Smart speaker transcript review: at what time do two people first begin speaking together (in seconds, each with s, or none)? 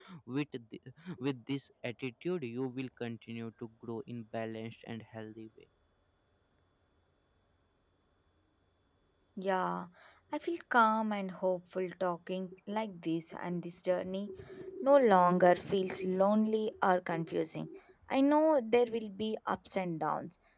none